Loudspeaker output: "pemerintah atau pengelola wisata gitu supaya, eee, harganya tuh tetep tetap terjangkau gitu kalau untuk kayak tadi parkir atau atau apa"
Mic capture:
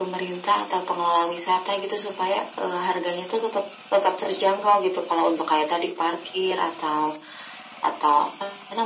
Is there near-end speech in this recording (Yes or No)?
No